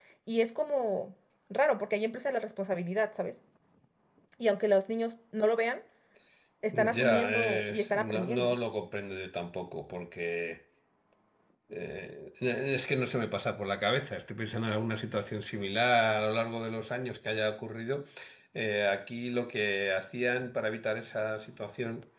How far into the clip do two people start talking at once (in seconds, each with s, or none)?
6.7 s